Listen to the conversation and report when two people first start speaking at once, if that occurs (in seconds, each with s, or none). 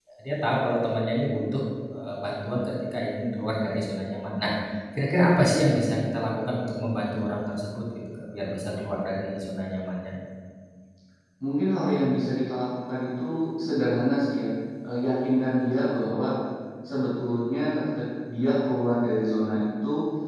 none